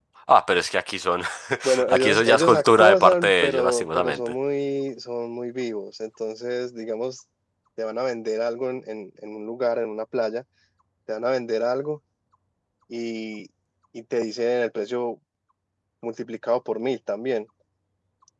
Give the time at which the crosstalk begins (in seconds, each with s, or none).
1.9 s